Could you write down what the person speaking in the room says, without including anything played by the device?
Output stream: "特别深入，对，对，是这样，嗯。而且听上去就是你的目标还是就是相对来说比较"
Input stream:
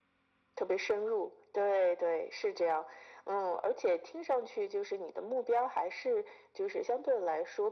none

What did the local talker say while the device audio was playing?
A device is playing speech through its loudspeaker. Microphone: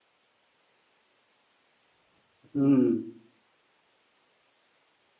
हुँ, हुँ।

